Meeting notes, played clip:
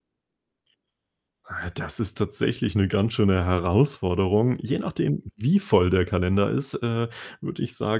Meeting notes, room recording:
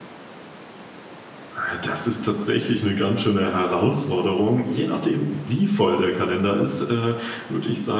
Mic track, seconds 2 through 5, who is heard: echo only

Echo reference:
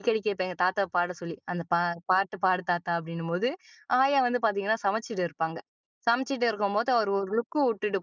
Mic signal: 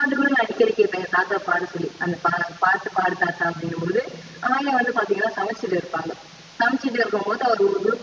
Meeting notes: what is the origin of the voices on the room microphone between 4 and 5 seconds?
echo only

